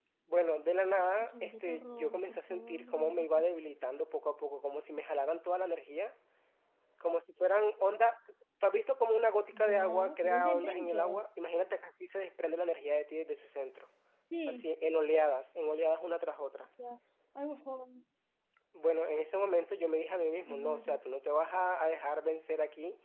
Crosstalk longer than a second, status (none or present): present